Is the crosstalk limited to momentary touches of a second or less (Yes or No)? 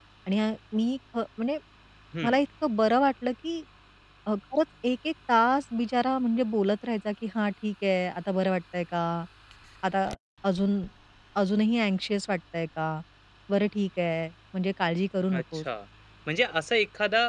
Yes